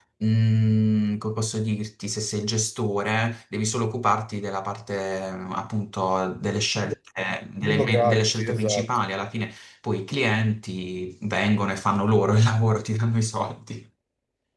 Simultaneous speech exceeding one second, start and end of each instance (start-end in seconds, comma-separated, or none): 7.6-8.9